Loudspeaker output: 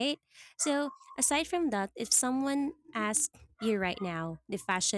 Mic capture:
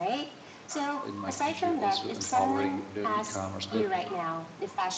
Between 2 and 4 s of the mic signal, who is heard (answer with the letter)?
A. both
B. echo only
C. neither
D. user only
A